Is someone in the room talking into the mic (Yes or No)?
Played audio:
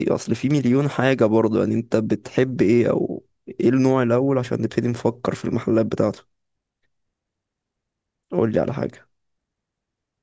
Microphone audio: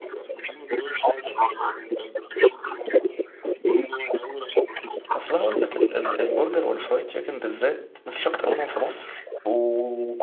Yes